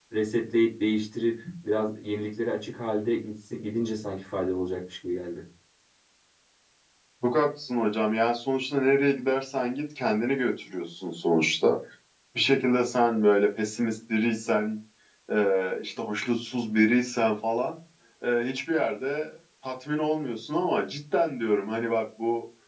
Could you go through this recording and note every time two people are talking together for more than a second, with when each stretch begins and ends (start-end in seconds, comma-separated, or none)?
none